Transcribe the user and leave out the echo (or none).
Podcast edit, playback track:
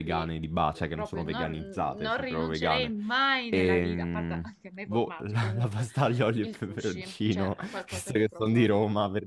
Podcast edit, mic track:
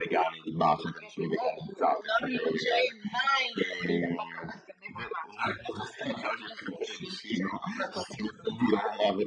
none